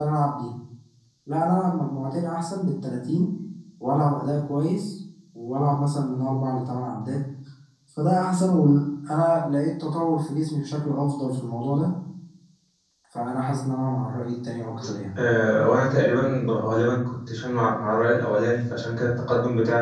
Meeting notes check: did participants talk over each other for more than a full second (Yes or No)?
No